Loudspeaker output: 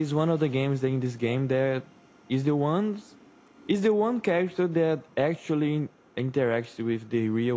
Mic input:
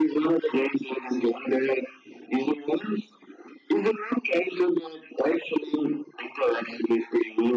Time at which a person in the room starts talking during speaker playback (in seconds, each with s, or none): none